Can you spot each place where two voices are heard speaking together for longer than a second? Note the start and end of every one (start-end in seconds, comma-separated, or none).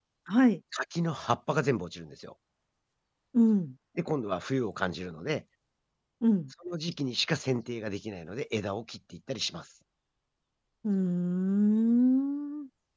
none